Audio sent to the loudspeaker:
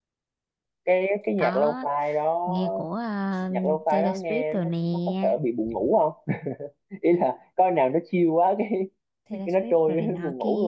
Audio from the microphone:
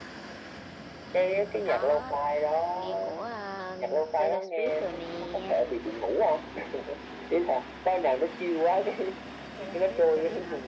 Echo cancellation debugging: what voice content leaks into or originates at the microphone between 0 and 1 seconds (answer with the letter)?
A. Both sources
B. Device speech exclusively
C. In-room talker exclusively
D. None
D